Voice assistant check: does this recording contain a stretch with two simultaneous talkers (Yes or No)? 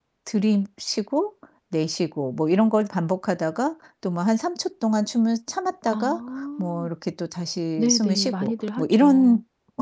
Yes